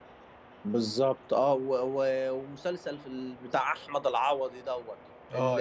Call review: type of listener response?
listening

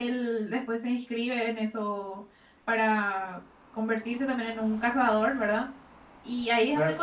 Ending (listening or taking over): listening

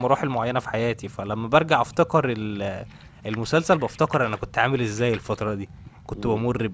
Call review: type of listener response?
listening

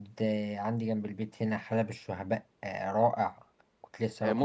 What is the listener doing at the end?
taking over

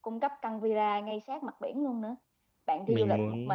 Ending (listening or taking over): listening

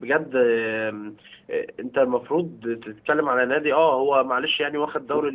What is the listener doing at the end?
listening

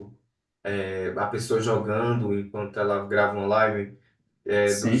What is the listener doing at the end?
listening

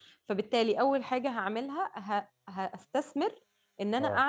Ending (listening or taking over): listening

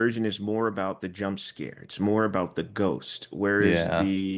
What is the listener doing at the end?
listening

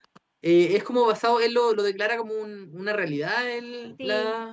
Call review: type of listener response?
taking over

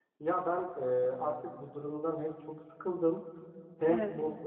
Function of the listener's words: listening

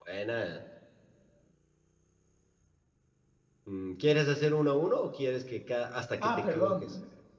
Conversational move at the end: taking over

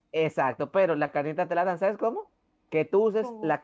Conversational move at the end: listening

